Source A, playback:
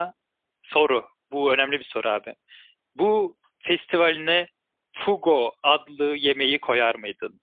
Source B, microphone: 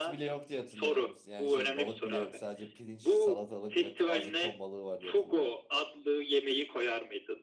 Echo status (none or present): present